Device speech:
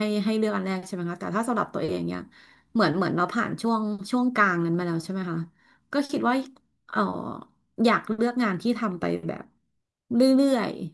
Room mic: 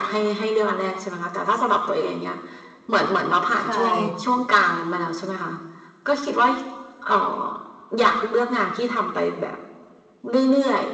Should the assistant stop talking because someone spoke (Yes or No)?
Yes